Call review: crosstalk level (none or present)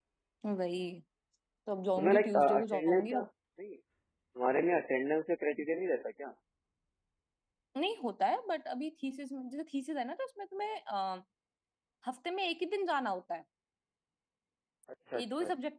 present